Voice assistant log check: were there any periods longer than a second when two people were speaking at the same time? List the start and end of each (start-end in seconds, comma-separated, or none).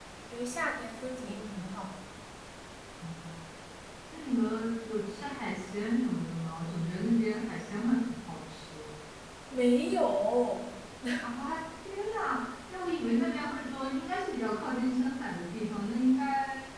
none